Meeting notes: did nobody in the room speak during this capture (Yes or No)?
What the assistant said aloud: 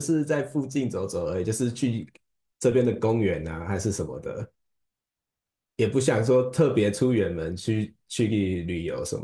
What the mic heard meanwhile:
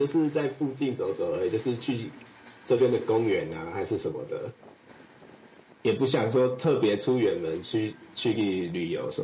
Yes